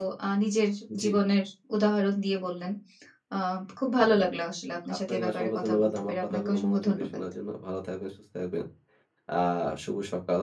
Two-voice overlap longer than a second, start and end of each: 5.1-7.1

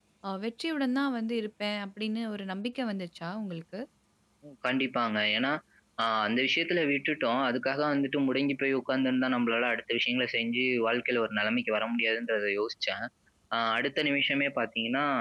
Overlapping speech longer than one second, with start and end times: none

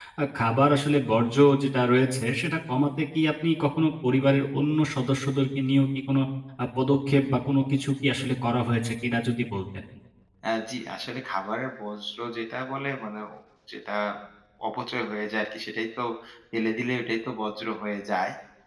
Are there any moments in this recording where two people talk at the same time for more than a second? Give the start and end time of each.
none

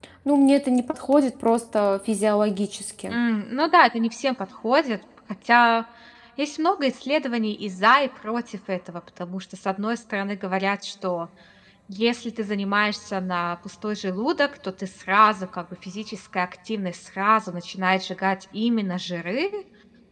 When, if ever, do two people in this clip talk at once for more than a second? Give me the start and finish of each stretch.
none

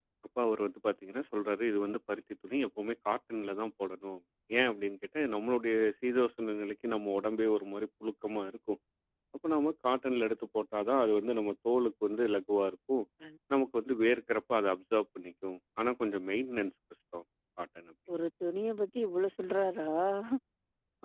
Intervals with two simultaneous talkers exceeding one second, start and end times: none

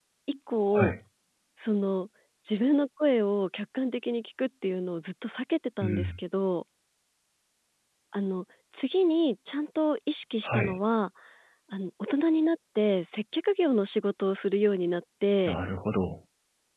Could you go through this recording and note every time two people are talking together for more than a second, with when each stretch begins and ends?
none

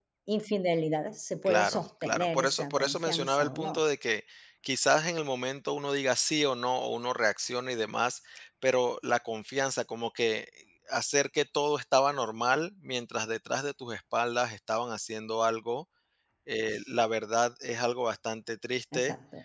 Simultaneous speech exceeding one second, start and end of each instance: 1.5-3.8

